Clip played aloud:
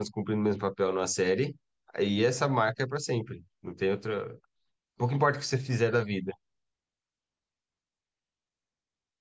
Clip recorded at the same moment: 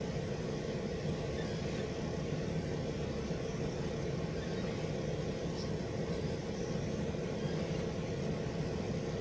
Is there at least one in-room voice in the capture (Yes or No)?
No